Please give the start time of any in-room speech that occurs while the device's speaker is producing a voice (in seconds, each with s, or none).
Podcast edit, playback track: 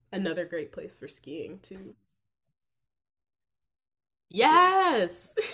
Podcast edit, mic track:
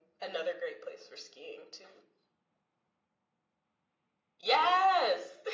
none